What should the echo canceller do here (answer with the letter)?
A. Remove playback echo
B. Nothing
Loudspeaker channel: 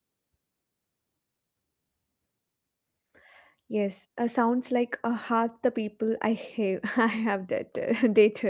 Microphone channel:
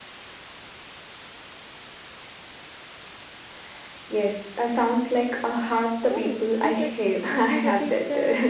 A